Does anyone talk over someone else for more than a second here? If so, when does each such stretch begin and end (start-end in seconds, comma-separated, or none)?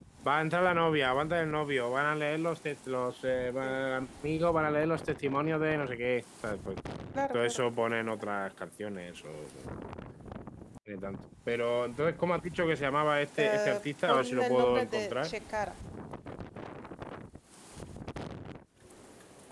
13.4-15.3